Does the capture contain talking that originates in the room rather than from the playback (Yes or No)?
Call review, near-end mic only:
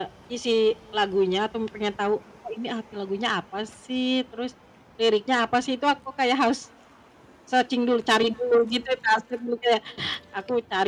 No